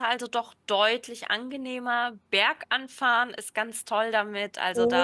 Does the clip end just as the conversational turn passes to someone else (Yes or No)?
Yes